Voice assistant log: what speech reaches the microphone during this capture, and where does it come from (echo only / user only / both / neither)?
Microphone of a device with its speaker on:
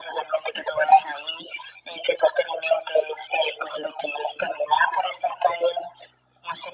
echo only